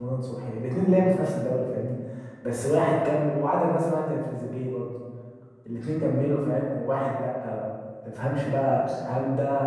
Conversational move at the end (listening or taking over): listening